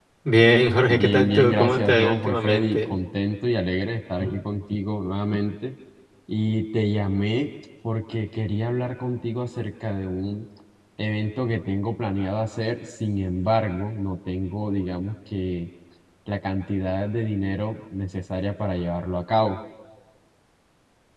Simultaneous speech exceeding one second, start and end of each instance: 0.9-3.0

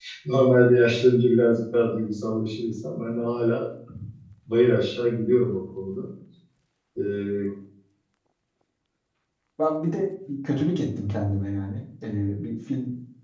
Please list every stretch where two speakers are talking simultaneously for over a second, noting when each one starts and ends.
none

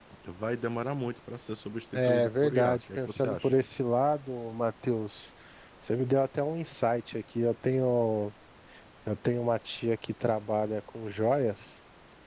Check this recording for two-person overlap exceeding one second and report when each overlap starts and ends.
1.9-3.6

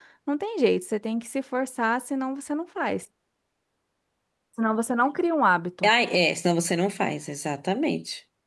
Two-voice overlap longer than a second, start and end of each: none

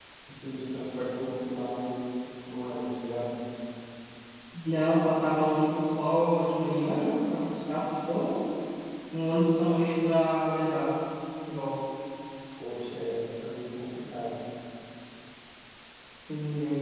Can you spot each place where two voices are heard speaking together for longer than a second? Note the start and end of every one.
none

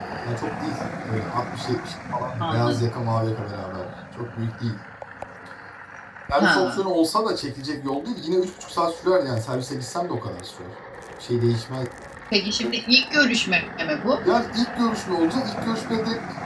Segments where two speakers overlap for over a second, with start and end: none

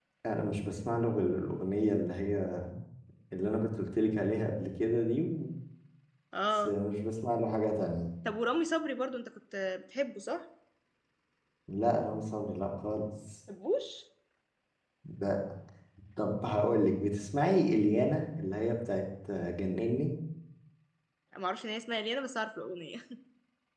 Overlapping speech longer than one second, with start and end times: none

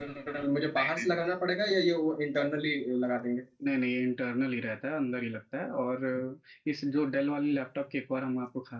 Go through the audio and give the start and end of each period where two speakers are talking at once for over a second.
none

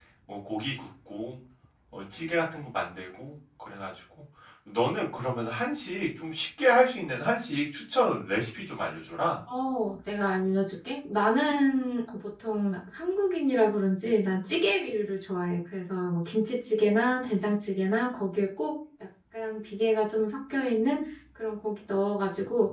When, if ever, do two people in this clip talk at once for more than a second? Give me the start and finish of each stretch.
none

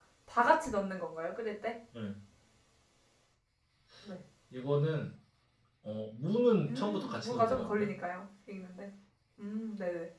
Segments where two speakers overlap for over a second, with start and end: 6.7-7.9

